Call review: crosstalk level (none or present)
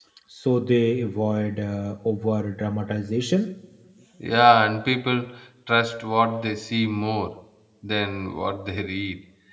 none